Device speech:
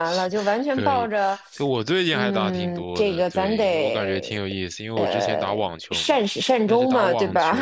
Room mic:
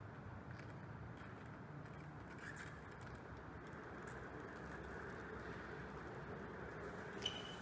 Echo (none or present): none